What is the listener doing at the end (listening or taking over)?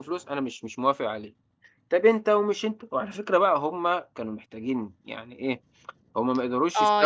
taking over